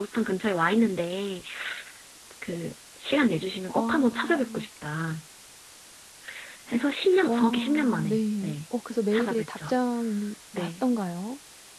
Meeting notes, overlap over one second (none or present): present